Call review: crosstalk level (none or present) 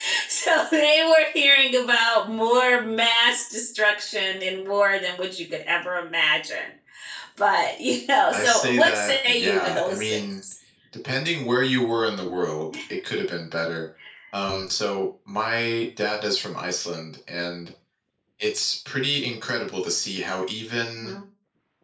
present